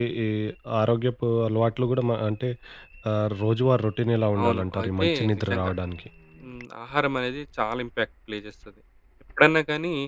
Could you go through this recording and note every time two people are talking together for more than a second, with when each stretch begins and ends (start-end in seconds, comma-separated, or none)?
4.4-5.7